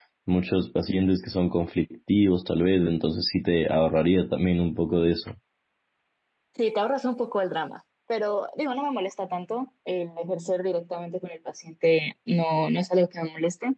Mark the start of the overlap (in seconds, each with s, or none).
none